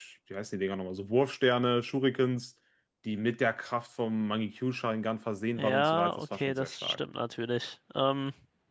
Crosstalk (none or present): present